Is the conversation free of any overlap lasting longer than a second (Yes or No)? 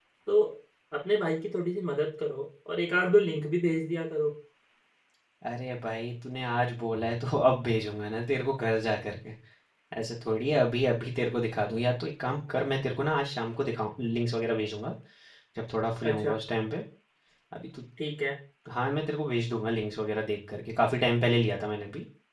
Yes